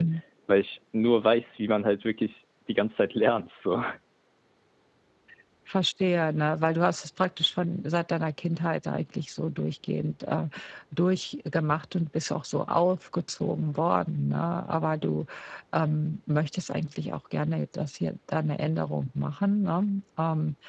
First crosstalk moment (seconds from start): none

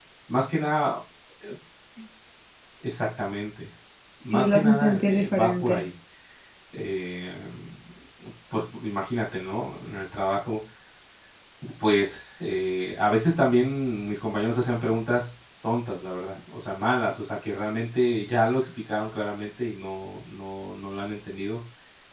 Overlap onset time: 4 s

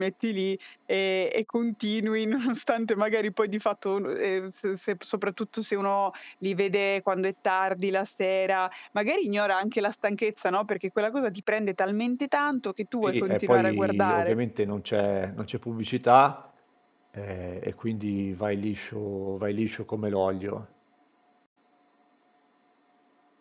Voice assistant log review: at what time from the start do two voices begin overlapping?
13 s

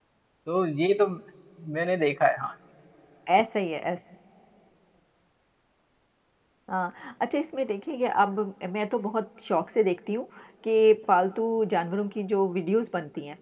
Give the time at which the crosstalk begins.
none

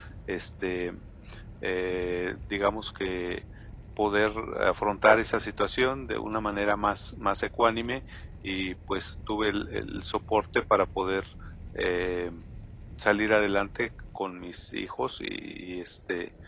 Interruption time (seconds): none

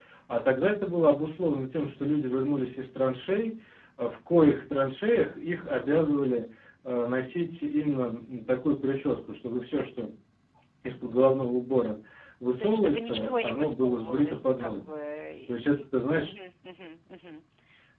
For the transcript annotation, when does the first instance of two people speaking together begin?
13 s

